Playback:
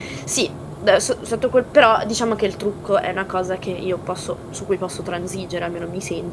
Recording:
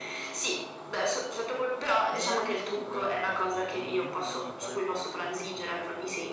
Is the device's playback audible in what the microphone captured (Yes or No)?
Yes